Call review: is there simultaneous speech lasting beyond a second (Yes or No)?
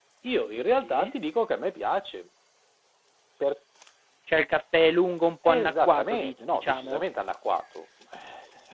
Yes